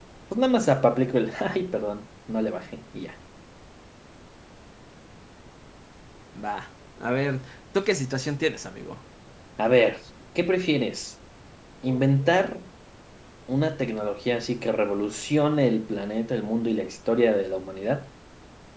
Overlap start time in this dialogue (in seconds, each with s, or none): none